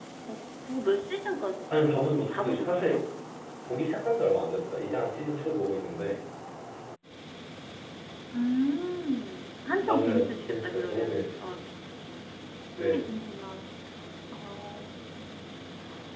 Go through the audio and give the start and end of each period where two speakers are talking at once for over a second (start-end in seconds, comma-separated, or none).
1.7-3.0, 9.9-11.5